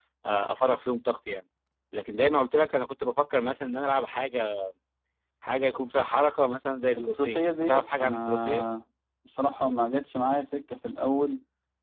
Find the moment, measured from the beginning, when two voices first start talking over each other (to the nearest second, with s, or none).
7 s